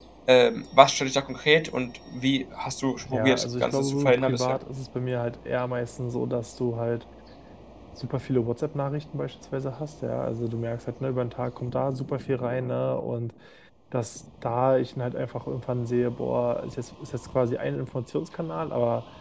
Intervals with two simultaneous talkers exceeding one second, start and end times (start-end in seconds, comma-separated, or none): 3.1-4.6